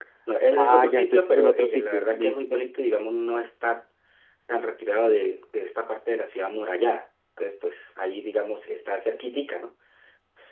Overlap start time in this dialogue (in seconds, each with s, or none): 0.6 s